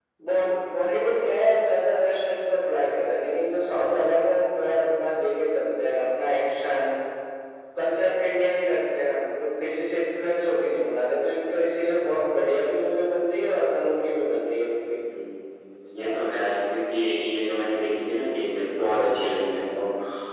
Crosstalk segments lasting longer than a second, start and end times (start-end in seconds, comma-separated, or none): none